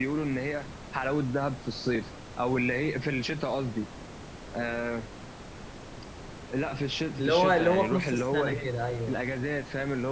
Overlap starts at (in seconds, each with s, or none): 7.2 s